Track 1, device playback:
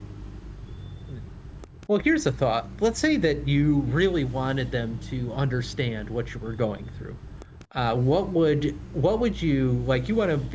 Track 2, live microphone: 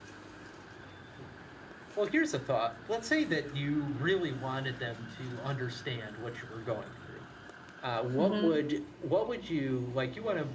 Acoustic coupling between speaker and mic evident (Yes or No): Yes